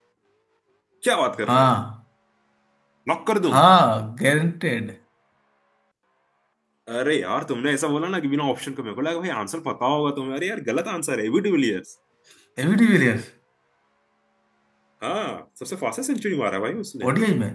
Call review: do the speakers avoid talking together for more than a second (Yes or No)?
Yes